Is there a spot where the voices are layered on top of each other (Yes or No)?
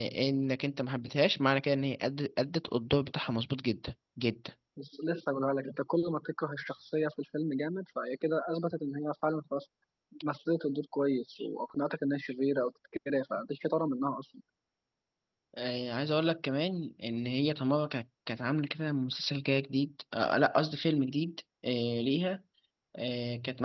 No